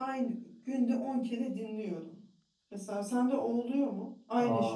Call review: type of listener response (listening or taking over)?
taking over